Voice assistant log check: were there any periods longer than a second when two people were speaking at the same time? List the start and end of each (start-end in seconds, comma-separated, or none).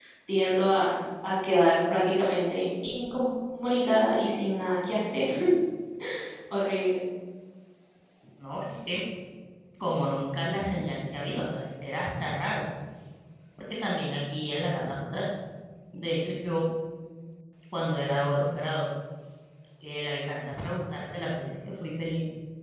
none